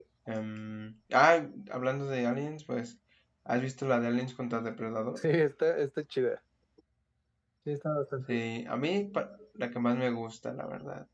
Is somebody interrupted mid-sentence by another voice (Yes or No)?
No